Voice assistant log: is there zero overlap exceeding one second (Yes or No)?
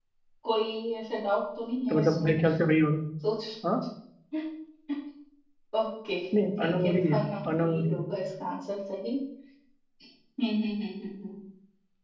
No